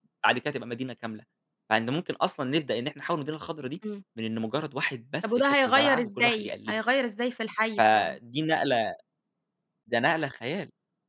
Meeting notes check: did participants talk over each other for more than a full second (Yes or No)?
Yes